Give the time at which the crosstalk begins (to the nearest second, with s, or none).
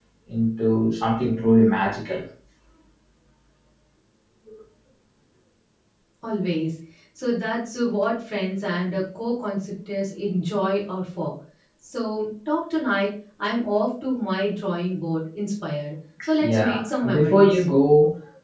16 s